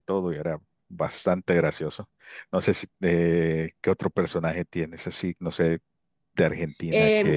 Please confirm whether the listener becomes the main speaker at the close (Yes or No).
Yes